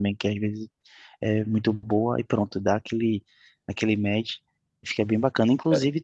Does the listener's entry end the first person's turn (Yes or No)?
No